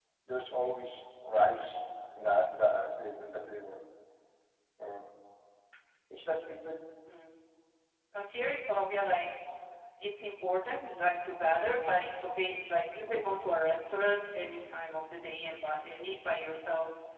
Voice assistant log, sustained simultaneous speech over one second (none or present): none